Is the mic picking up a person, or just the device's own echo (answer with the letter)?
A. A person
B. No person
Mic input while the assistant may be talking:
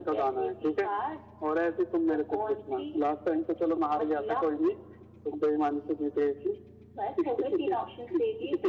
B